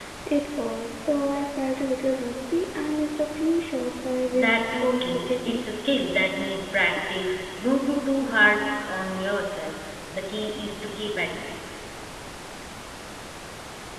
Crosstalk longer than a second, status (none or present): present